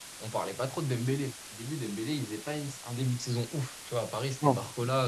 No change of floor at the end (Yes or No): Yes